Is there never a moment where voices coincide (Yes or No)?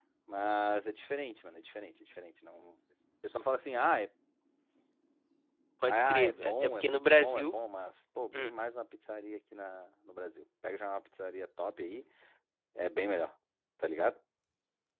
No